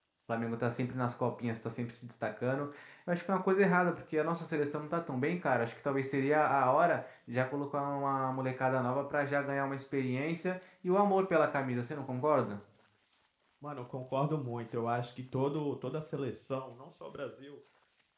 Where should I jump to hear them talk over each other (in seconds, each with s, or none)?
none